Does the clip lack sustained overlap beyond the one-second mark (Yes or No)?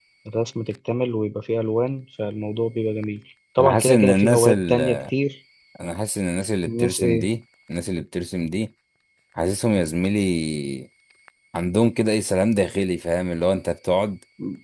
No